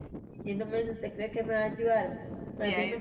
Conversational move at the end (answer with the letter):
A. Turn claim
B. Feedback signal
B